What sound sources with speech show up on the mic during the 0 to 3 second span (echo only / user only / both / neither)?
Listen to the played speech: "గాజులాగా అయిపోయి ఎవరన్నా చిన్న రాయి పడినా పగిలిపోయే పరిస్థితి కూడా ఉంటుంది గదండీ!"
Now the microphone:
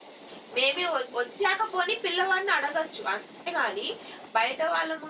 user only